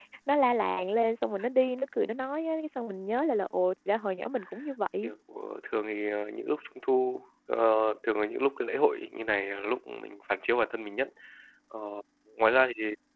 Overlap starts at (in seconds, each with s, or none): none